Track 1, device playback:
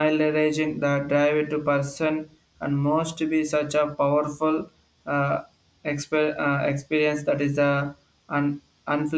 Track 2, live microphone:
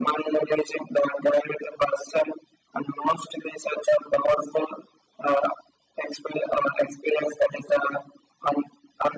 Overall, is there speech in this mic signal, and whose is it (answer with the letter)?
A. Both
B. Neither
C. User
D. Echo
D